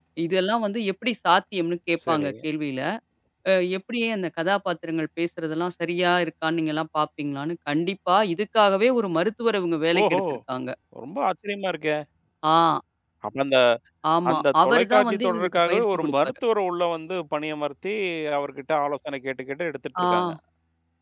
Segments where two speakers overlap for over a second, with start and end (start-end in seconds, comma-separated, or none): 14.3-16.3